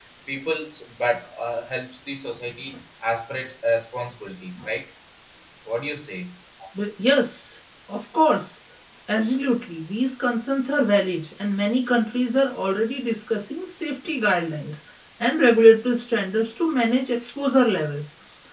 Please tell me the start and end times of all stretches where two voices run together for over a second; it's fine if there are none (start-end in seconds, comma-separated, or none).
none